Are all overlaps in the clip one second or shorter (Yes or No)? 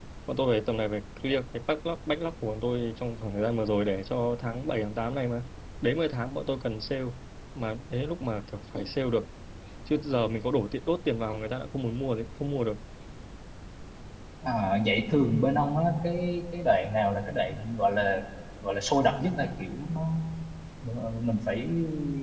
Yes